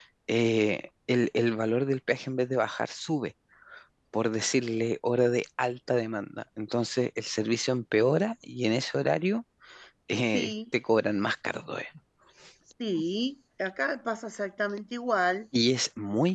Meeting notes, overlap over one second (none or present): none